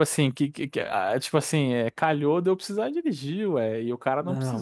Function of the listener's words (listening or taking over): taking over